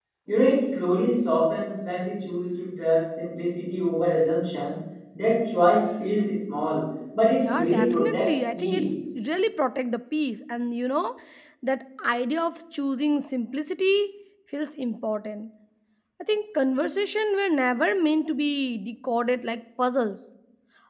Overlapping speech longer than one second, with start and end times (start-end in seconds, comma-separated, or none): 7.4-8.9